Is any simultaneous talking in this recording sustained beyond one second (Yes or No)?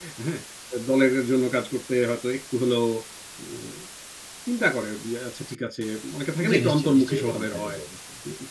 Yes